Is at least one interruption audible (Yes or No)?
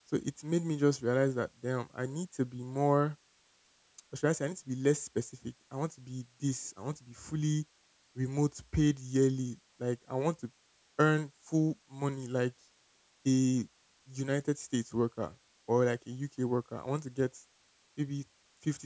No